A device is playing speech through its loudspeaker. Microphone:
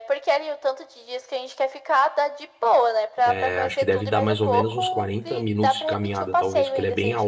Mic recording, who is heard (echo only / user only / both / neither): both